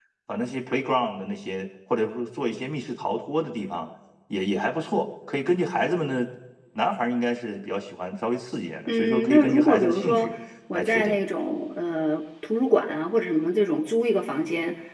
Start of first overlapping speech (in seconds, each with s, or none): 8.9 s